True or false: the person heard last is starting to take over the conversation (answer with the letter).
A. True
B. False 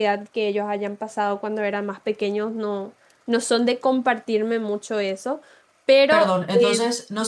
A